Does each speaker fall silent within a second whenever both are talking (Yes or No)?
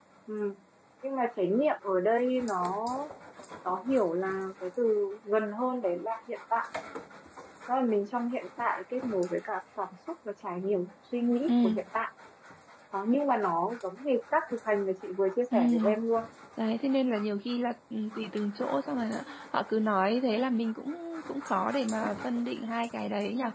Yes